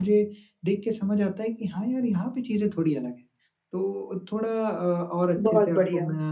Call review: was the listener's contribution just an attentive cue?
Yes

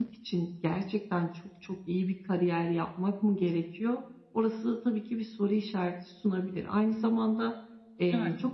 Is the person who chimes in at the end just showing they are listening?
Yes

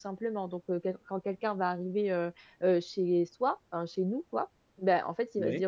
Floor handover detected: No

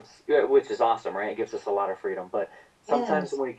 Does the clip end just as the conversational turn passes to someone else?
No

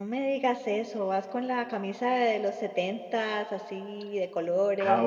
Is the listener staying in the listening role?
No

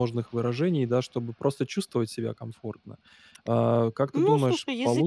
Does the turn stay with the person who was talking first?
No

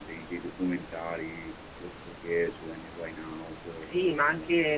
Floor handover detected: Yes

